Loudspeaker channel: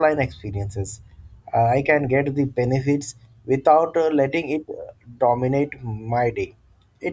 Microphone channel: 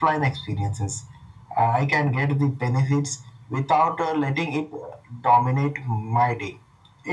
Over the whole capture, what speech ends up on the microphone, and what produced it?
echo only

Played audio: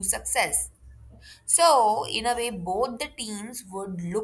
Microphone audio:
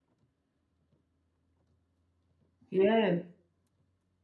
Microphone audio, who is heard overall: user only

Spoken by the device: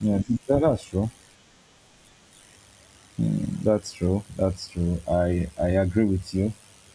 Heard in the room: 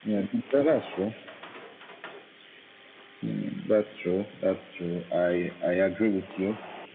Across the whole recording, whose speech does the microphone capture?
echo only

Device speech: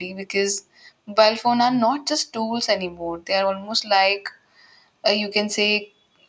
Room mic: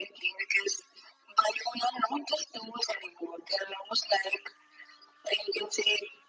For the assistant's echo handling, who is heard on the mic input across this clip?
echo only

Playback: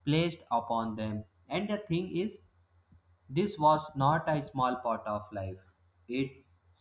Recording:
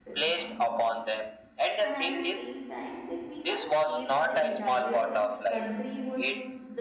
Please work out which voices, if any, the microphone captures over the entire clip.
both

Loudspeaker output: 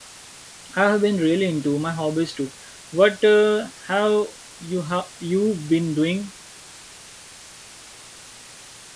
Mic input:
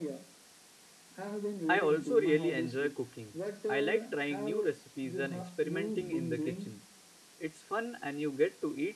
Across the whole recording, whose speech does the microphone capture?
both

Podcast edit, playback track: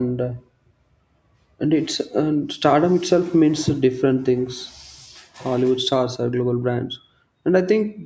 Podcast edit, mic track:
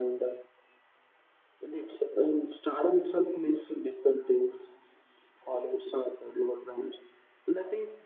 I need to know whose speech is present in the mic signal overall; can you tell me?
echo only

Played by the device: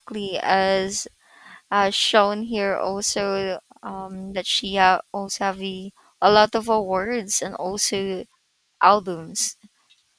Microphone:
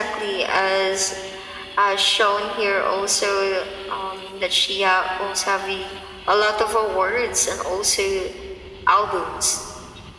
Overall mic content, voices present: echo only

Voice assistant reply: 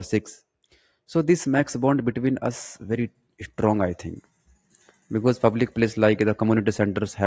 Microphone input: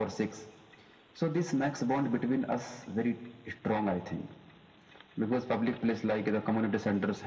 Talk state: echo only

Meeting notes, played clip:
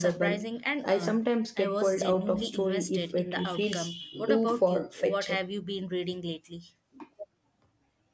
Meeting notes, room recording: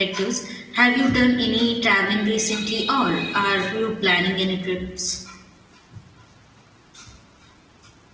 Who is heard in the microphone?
user only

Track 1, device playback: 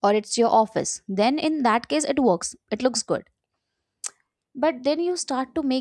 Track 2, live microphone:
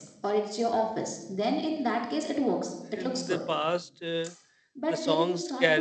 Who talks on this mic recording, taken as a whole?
both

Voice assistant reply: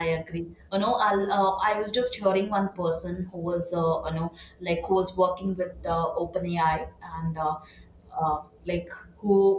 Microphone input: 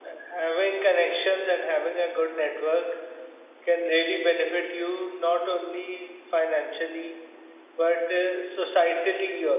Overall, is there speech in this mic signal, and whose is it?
user only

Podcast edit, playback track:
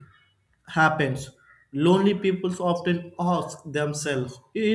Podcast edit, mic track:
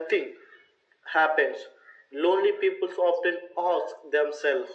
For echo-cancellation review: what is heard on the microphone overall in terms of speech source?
echo only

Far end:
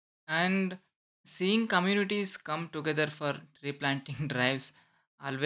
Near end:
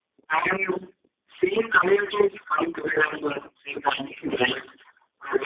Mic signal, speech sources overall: echo only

